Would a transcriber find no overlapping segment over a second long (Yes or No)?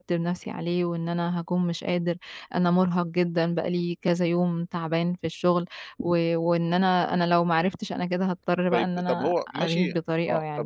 No